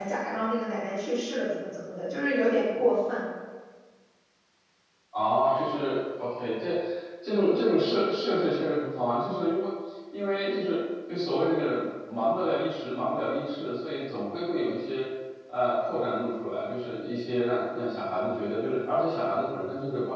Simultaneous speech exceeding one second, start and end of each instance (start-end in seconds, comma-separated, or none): none